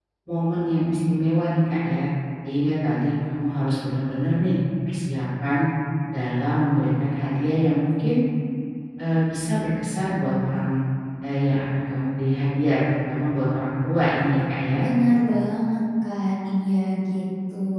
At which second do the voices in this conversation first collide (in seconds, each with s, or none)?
none